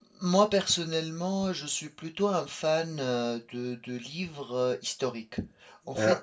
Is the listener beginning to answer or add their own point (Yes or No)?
No